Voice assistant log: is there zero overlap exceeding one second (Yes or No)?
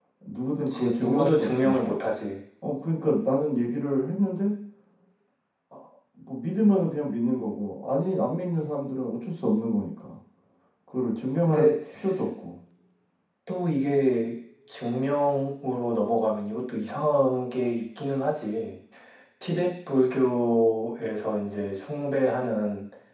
No